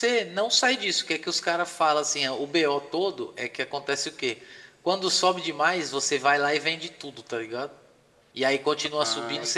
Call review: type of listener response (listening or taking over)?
listening